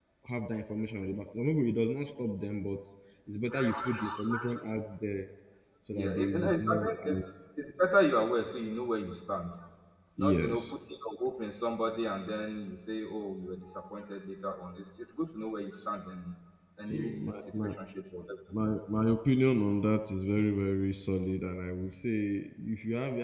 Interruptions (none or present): present